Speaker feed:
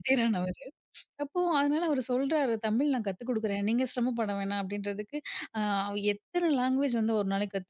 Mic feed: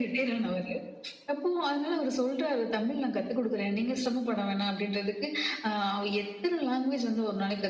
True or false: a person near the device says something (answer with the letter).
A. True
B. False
B